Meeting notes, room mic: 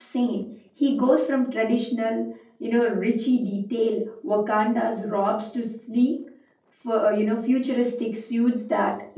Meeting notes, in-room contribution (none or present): present